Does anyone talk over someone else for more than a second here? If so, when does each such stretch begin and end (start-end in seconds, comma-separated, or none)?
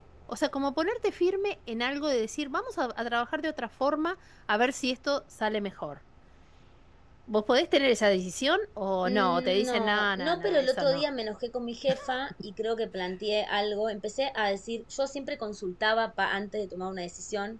9.0-11.0